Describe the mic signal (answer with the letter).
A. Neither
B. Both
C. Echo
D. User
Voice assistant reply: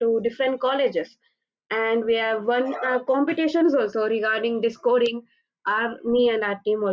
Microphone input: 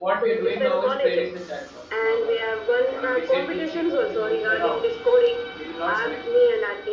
B